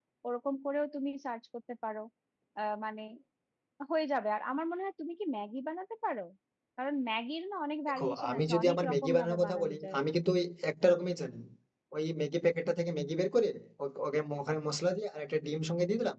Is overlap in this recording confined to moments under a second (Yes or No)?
No